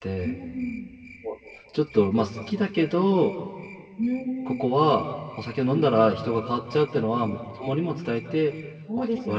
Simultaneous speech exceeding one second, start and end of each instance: none

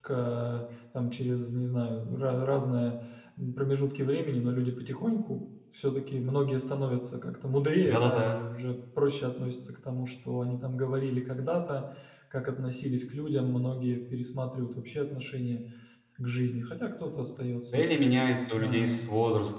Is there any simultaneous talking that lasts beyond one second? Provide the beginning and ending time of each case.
none

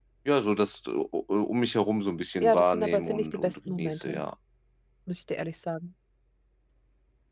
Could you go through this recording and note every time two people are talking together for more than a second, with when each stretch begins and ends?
2.4-4.2

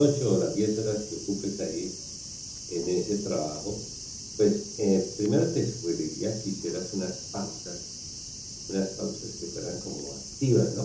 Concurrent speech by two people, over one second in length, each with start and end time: none

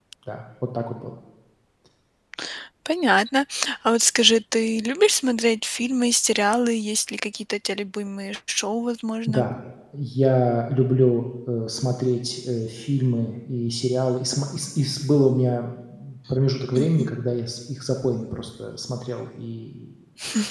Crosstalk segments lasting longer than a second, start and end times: none

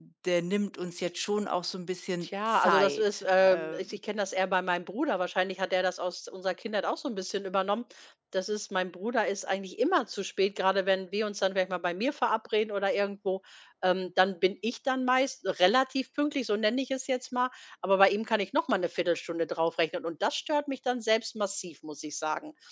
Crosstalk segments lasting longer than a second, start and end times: 2.2-3.8

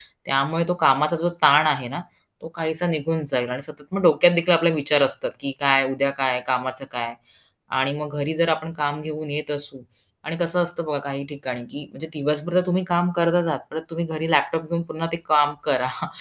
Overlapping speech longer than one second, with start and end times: none

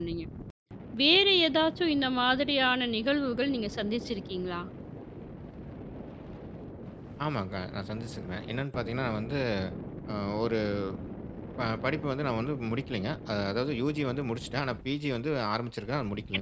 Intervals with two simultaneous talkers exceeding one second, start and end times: none

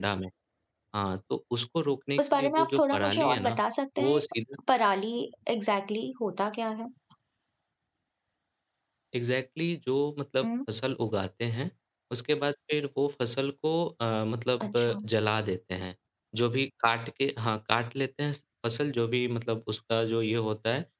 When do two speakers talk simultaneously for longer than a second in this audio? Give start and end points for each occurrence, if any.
2.2-3.6

